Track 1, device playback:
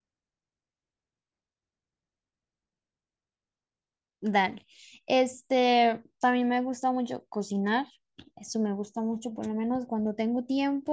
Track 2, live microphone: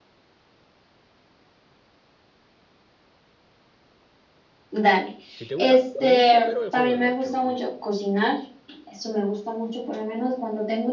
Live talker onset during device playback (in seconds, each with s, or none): 5.3 s